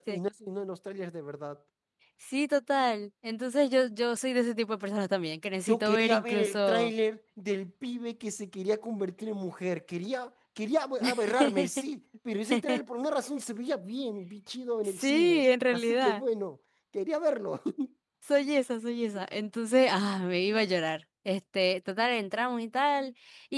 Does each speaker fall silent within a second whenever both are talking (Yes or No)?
No